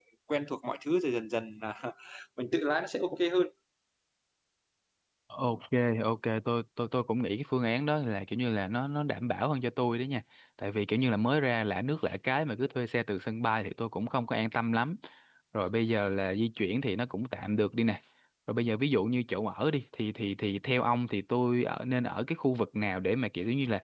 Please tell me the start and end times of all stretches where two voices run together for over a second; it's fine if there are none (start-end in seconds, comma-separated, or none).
none